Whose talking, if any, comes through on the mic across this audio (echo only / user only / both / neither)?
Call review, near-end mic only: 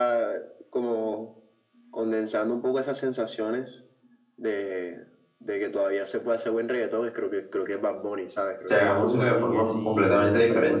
both